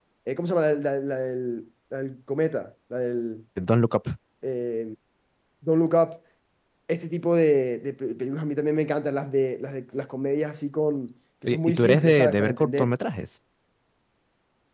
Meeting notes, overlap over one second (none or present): present